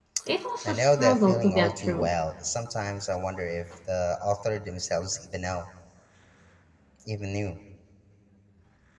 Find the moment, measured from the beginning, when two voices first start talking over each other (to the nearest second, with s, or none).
1 s